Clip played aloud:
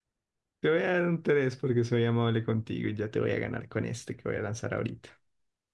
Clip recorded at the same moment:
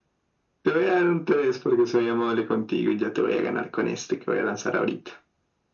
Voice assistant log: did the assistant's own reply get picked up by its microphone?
Yes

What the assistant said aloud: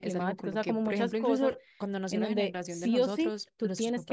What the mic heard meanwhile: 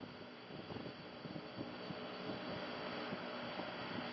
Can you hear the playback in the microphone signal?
No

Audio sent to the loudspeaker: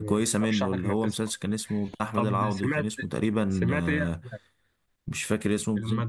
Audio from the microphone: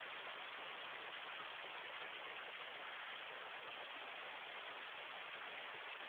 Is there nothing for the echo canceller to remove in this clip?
Yes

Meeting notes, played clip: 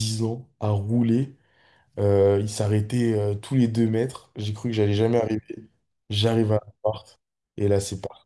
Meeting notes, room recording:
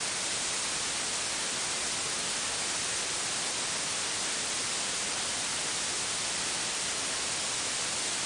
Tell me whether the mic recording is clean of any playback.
Yes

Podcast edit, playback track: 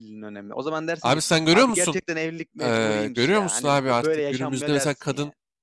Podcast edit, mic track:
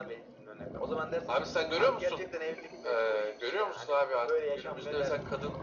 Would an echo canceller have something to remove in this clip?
Yes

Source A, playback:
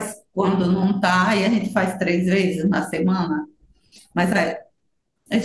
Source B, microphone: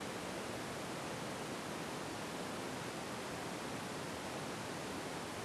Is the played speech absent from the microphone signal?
Yes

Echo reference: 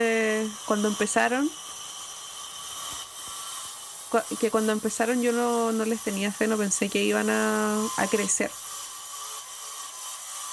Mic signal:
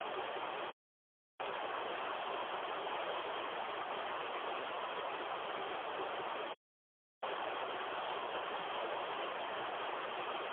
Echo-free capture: Yes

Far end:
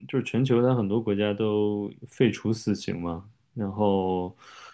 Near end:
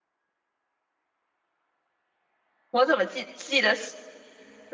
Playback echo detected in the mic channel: No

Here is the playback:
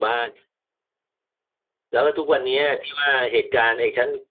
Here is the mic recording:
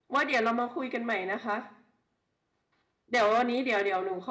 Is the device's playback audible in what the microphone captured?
No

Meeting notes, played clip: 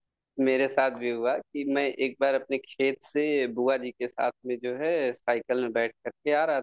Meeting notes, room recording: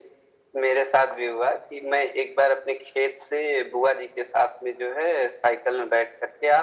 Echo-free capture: No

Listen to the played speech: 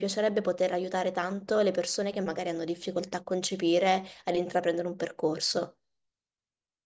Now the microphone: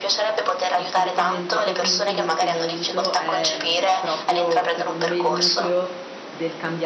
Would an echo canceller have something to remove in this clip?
Yes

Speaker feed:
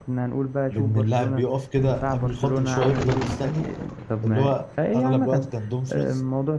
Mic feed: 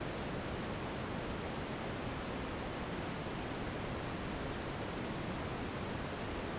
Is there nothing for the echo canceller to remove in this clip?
Yes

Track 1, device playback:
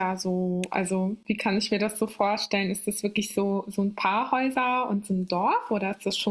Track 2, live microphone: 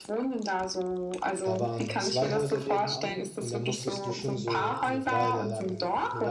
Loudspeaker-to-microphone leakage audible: Yes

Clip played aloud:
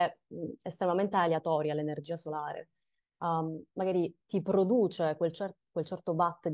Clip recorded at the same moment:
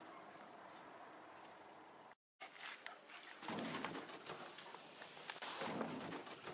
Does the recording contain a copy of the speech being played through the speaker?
No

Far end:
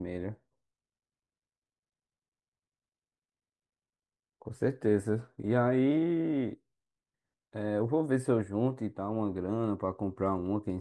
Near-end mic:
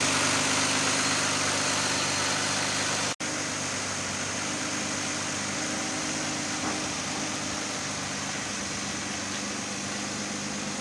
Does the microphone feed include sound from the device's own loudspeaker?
No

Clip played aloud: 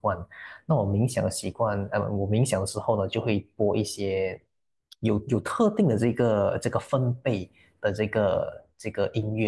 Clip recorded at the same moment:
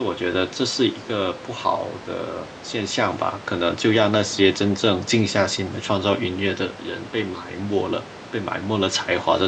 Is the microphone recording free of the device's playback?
Yes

